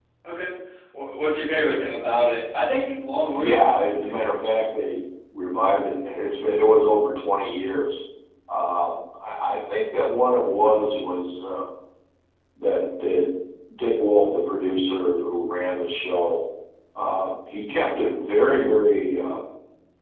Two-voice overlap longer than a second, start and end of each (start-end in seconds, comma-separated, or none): 3.4-4.6